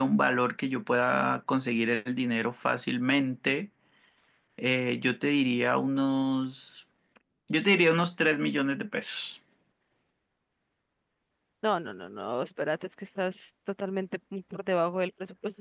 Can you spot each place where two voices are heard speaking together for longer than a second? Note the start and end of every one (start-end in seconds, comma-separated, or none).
none